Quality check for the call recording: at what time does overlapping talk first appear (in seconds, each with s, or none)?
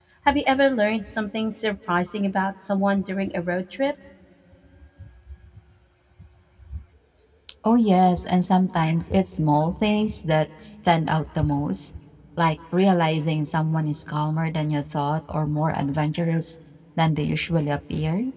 none